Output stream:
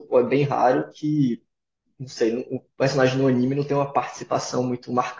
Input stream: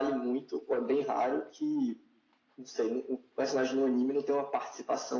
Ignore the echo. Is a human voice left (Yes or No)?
No